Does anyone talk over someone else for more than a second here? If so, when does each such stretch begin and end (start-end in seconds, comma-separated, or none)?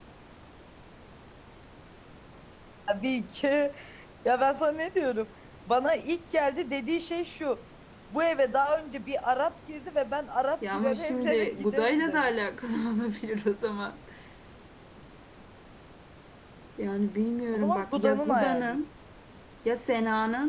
10.7-12.3, 17.5-18.8